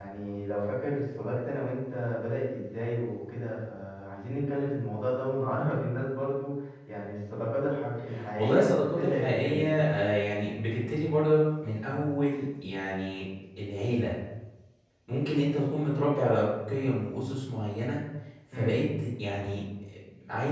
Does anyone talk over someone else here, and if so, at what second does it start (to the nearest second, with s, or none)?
8 s